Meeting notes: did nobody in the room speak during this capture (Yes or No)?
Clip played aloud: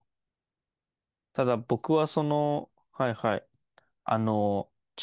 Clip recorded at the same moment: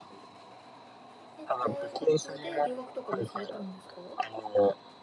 No